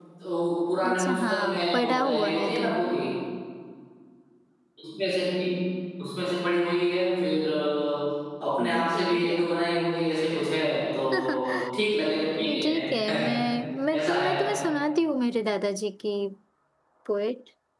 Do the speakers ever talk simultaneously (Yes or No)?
Yes